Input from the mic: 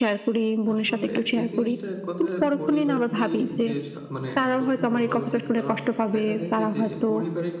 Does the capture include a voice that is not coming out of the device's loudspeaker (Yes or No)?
Yes